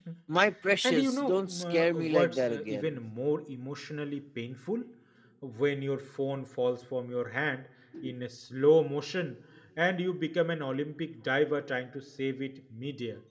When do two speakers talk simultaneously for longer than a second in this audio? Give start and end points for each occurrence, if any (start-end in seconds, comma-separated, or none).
0.8-3.0